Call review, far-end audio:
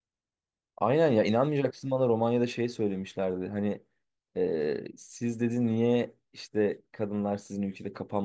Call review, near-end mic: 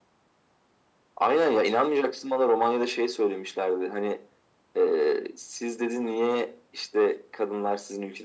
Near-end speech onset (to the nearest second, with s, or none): none